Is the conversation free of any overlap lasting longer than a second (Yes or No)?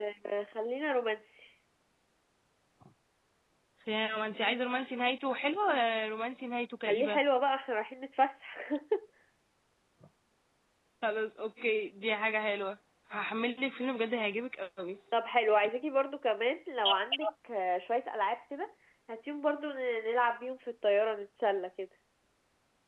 Yes